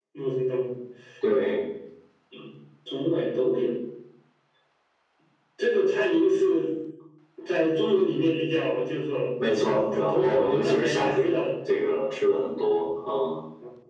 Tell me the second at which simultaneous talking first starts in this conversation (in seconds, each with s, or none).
9.4 s